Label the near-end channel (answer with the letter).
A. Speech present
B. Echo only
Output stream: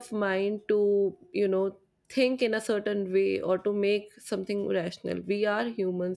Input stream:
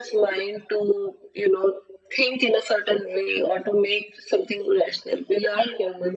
B